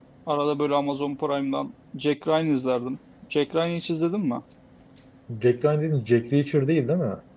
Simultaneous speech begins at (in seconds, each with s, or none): none